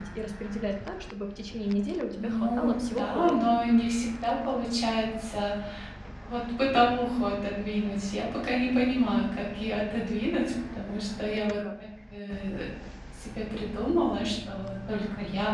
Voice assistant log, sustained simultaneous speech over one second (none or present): present